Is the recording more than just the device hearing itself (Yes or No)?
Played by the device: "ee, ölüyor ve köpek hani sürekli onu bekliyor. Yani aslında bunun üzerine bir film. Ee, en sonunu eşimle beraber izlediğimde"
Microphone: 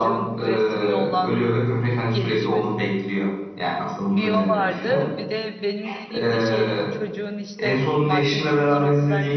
Yes